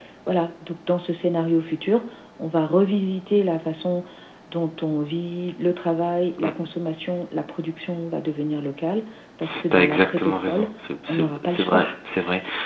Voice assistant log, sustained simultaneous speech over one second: present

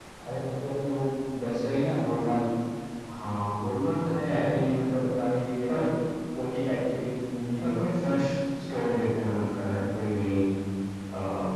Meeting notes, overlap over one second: none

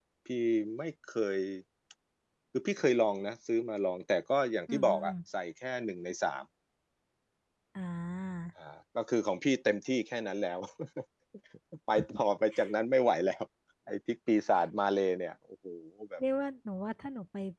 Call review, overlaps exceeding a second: none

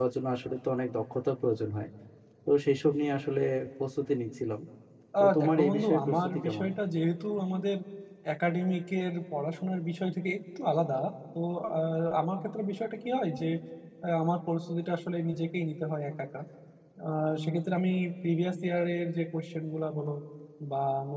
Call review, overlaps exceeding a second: present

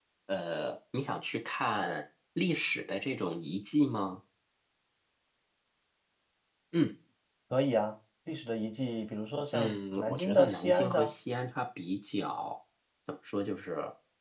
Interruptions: present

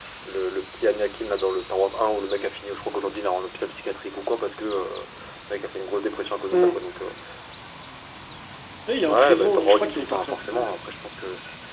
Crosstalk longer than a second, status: present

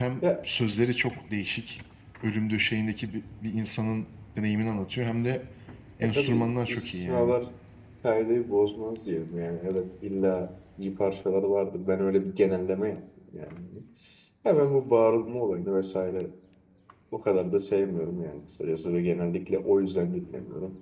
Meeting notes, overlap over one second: present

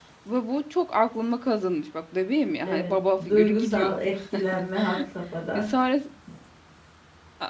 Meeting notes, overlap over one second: present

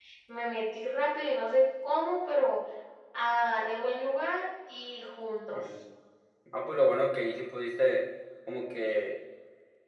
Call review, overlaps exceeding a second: none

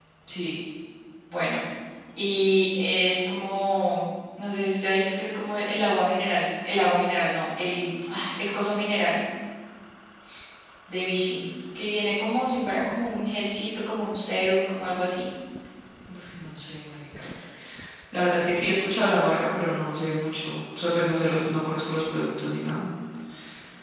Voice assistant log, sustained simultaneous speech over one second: none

